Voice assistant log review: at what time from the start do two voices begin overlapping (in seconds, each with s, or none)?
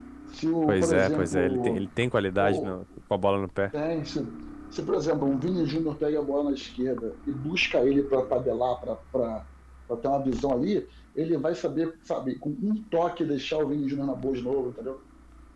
0.7 s